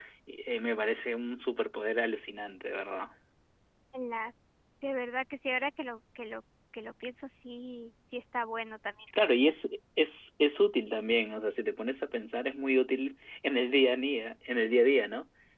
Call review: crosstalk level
none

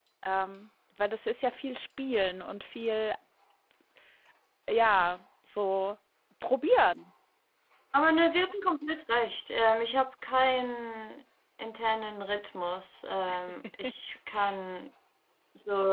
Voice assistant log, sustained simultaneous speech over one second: none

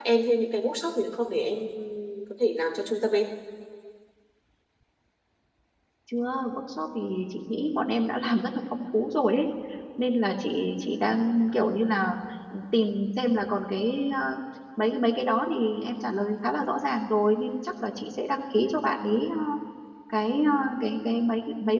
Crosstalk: none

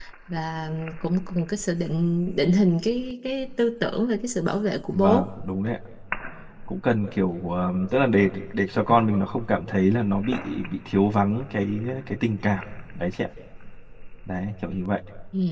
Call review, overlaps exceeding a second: none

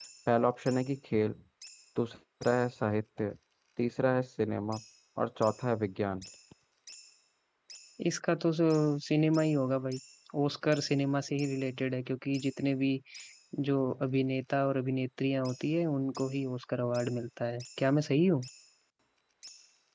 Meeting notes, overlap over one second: none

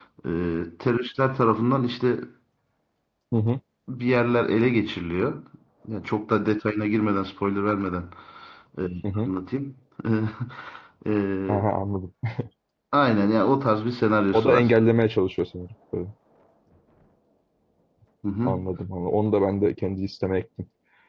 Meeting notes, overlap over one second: none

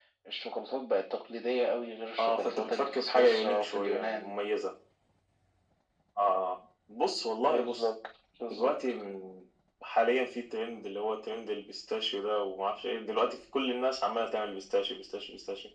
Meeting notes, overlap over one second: present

